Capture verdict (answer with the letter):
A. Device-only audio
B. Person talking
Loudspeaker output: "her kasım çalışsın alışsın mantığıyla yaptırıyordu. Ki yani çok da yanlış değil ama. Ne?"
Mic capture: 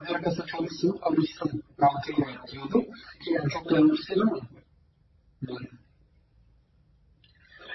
A